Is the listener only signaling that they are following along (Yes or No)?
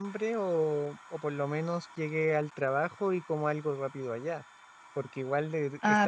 Yes